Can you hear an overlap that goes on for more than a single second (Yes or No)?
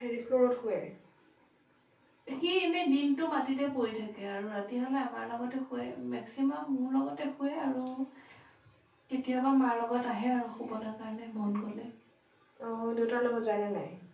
No